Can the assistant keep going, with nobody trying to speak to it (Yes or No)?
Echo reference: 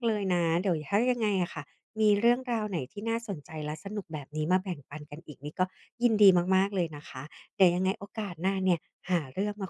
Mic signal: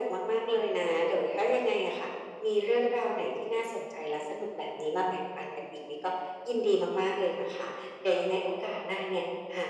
Yes